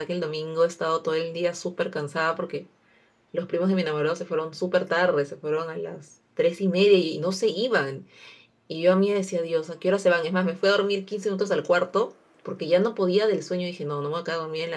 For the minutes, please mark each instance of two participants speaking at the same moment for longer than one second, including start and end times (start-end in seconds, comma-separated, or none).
none